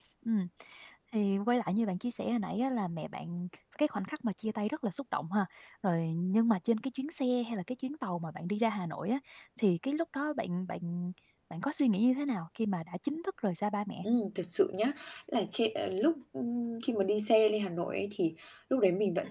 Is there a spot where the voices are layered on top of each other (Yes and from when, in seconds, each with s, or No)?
No